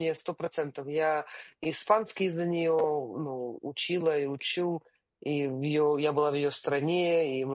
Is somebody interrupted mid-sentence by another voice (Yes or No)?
No